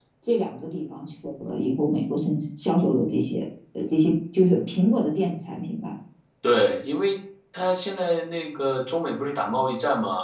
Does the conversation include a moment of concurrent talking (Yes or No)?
No